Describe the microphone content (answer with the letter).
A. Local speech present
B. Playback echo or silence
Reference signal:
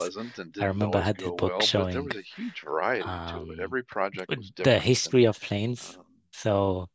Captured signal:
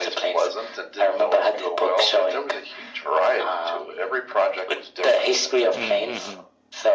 A